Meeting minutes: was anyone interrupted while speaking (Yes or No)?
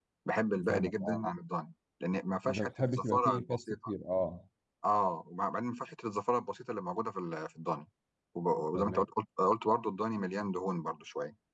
Yes